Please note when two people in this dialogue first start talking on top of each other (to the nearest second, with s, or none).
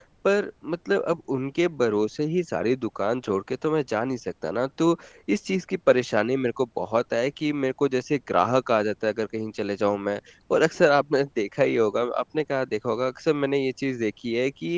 none